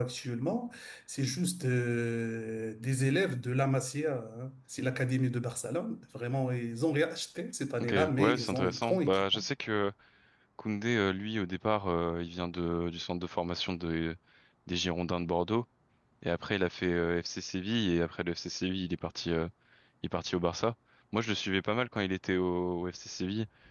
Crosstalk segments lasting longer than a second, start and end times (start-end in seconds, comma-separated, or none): 7.8-9.4